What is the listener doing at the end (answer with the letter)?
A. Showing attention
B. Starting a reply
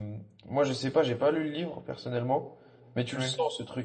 A